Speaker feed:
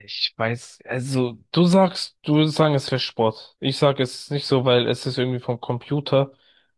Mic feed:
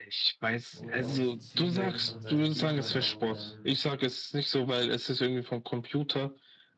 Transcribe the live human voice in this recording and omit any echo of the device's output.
und auf die Züge von seinen Gegnern auch ähm,

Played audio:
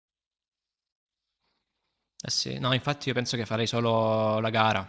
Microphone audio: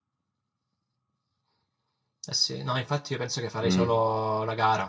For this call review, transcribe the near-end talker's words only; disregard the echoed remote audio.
Mm,

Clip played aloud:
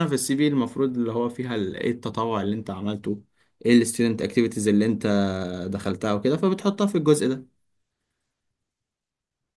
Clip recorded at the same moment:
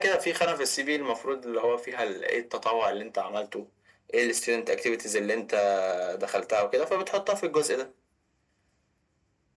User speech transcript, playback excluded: none

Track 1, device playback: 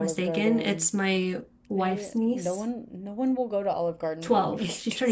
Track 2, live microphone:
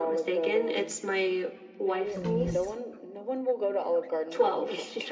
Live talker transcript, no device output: mm,

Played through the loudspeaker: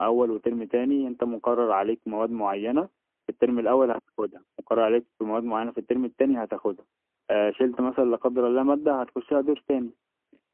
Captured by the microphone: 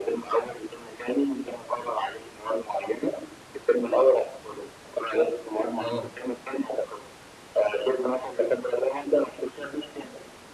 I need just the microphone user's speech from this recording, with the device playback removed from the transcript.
اه

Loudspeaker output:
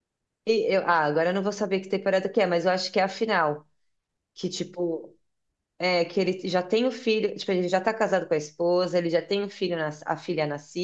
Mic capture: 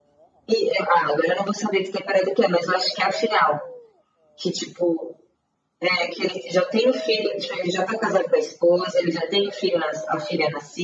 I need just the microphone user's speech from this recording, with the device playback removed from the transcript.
none

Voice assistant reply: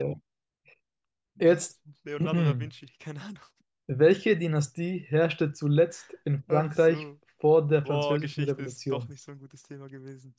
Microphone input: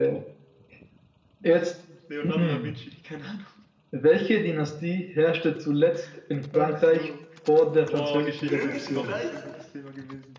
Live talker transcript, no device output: Römisches Reich?

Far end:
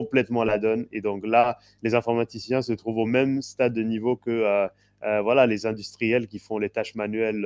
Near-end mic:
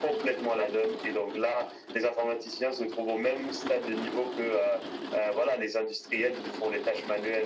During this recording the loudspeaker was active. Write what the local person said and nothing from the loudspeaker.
none

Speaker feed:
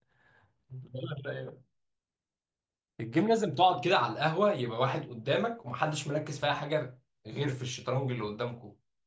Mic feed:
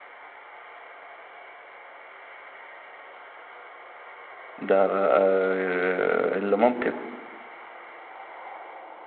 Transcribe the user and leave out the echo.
ده آه آه، اللي ممكن

